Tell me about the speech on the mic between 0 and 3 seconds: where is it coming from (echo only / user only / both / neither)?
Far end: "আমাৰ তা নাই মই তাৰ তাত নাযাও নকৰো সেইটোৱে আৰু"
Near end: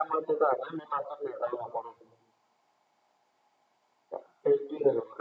echo only